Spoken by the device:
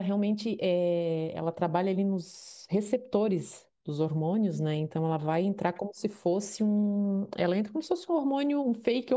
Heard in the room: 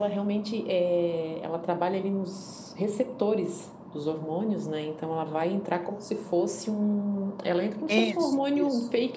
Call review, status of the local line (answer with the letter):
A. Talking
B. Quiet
A